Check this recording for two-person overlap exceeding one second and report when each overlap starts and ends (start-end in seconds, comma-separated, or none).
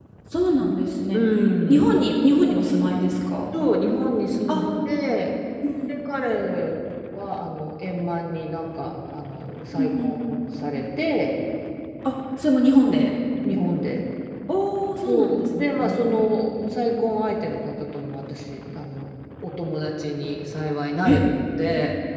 15.1-16.4